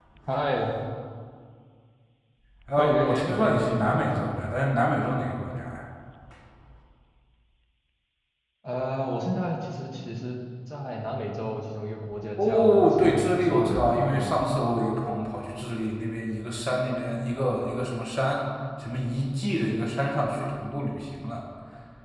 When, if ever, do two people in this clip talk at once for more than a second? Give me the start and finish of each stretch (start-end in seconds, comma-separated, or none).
2.8-4.3, 12.4-14.4